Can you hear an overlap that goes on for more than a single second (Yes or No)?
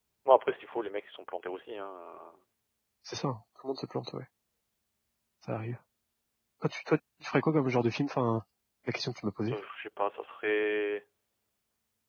No